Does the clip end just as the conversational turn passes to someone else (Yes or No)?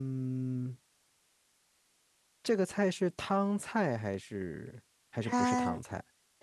Yes